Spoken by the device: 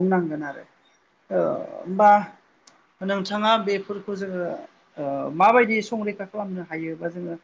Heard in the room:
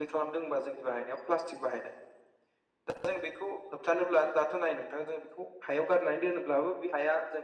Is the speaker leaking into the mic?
No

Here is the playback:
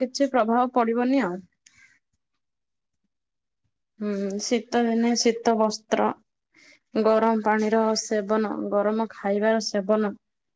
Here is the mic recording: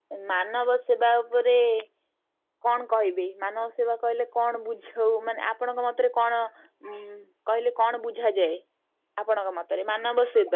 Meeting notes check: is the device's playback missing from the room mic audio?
Yes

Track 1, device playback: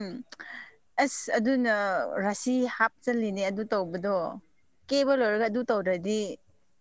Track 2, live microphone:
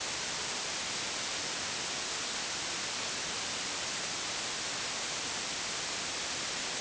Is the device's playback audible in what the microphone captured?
No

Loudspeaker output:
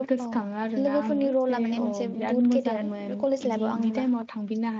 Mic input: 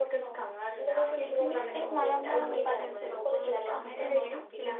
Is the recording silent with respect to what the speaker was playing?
No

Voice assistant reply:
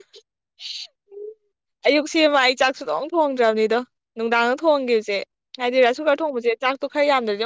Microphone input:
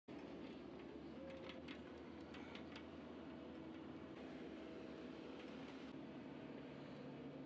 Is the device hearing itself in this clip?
No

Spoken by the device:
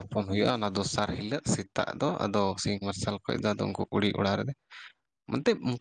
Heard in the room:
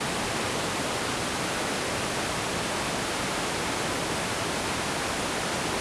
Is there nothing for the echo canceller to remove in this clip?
Yes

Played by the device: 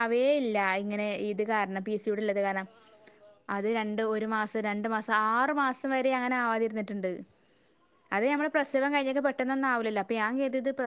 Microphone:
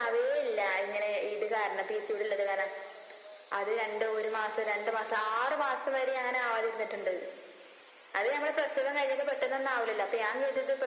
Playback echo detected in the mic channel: Yes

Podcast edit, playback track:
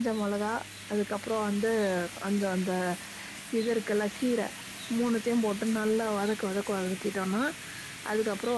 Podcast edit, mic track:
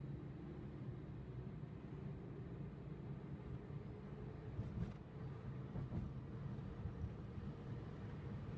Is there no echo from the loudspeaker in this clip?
Yes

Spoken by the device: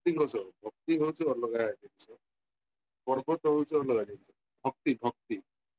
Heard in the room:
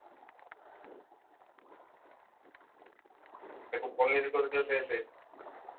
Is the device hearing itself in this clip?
No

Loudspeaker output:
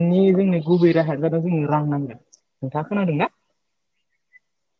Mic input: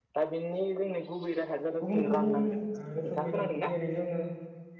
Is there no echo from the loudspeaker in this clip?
No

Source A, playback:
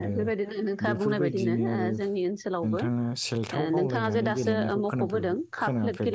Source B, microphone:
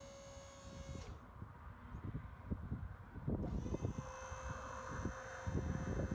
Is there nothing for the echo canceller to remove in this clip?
Yes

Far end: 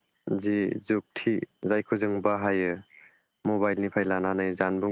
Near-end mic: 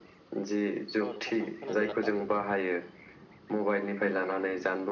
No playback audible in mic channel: No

